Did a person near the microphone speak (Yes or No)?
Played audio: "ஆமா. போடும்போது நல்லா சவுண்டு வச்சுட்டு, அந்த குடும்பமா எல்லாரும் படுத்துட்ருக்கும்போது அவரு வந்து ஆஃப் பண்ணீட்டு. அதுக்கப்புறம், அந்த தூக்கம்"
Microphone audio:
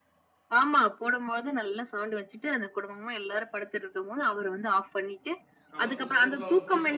Yes